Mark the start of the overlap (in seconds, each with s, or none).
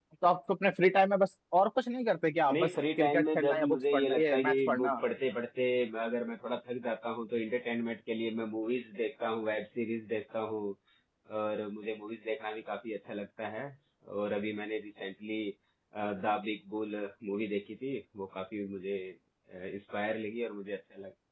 2.5 s